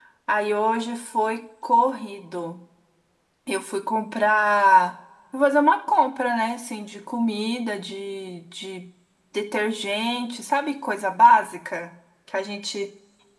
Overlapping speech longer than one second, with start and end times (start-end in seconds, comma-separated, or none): none